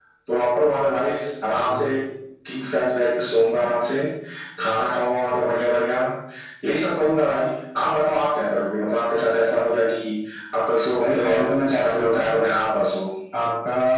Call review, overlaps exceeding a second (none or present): present